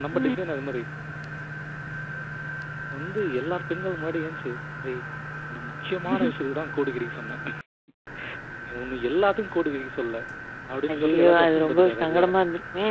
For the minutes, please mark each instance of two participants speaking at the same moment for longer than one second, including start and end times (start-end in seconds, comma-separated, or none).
10.9-12.3